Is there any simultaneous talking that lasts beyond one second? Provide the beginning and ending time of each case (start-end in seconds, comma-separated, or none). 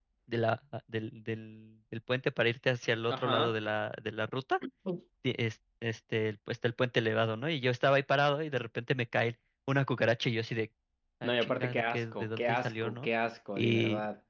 11.2-13.1